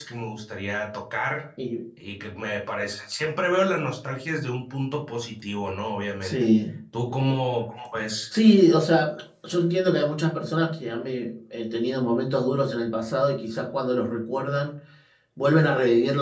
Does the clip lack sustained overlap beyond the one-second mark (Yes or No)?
Yes